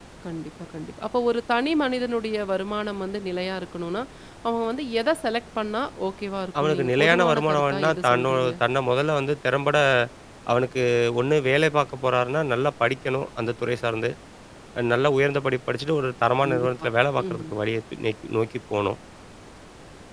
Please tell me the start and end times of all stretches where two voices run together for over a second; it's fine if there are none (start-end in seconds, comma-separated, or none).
6.6-8.5